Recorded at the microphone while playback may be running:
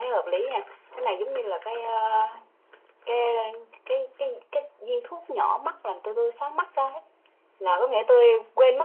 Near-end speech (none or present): none